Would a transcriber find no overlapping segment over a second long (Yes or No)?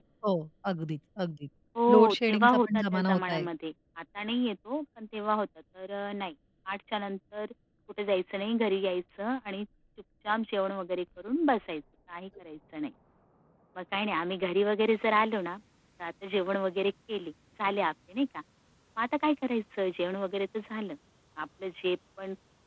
No